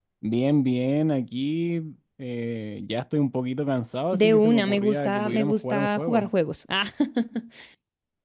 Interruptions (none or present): present